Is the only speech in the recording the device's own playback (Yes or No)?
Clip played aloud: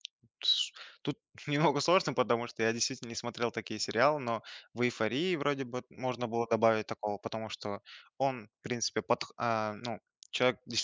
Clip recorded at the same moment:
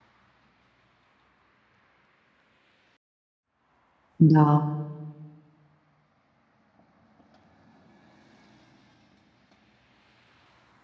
No